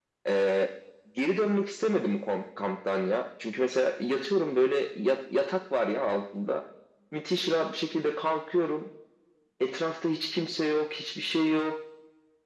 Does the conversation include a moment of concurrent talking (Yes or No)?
No